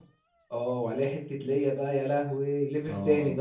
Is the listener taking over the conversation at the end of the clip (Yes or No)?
Yes